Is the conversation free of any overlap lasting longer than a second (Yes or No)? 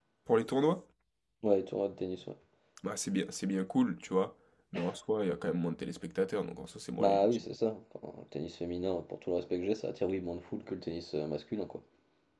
Yes